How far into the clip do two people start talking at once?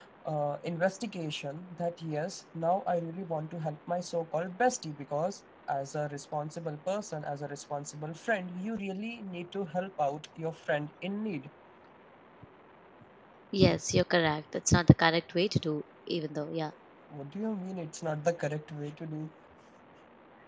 none

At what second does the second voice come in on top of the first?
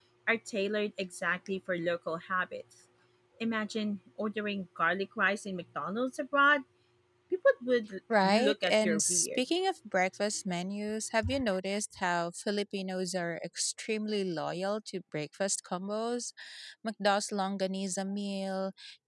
8 s

